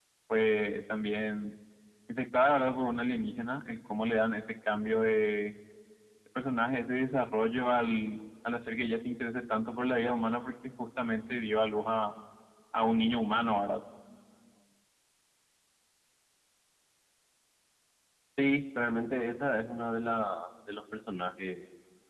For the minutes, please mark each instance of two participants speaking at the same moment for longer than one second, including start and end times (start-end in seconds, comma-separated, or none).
none